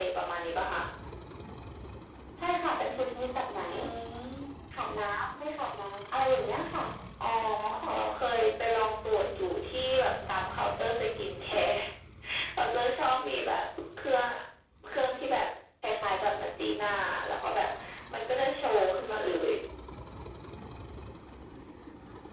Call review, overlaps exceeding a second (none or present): none